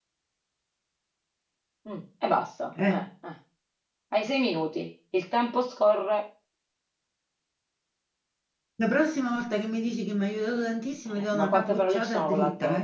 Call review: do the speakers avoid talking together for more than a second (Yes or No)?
No